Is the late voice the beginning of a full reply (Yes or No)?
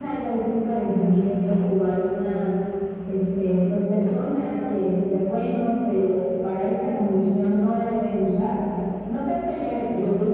No